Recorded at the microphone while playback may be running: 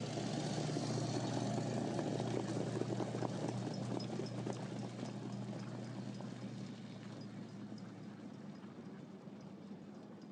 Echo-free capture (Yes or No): Yes